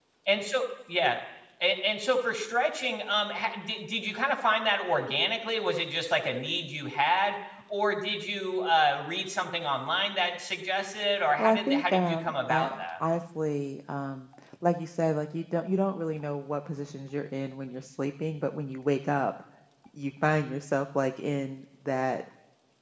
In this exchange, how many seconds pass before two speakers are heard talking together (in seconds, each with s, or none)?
11.4 s